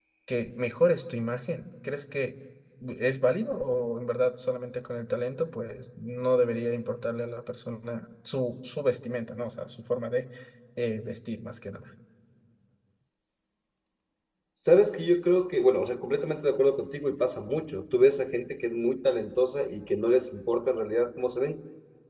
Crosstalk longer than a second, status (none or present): none